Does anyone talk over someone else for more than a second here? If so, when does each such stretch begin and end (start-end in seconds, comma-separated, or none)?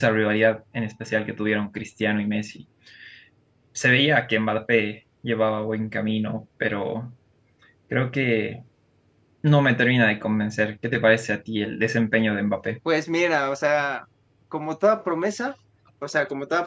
none